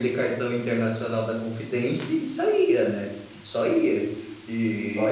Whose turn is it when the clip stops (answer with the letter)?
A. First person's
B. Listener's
A